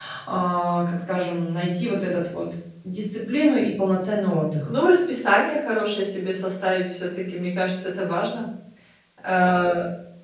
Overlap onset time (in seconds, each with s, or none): none